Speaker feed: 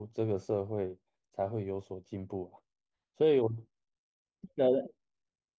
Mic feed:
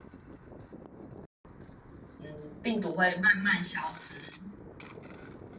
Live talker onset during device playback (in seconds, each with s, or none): 2.2 s